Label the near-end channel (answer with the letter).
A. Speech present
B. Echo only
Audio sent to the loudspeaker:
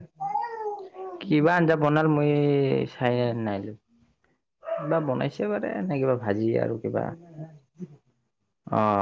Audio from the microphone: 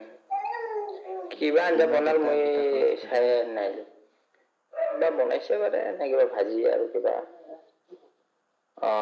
A